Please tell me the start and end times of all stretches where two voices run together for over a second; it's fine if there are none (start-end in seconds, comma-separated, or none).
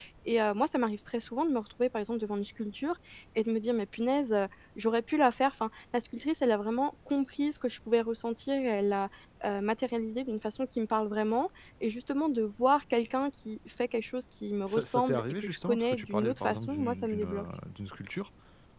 14.7-17.4